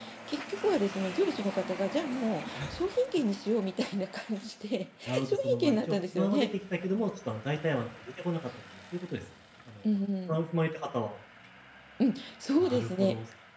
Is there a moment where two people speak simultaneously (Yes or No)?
Yes